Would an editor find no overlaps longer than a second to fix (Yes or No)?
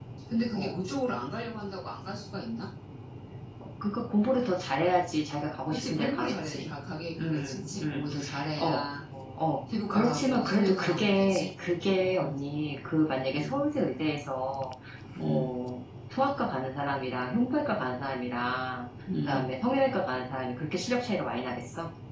No